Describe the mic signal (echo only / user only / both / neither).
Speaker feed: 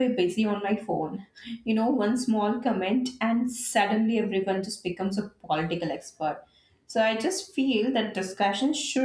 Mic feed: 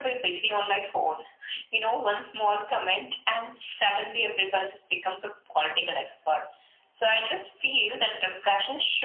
echo only